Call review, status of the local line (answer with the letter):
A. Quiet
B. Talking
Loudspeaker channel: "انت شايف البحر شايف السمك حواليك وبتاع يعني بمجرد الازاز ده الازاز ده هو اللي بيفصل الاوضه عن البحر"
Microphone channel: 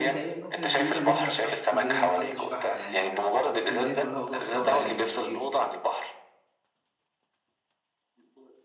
B